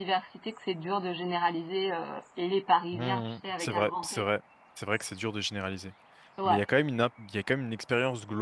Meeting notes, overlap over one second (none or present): present